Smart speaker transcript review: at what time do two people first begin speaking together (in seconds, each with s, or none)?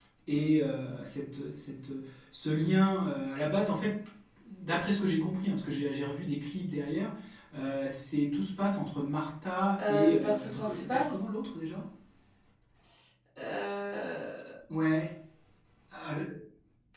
9.8 s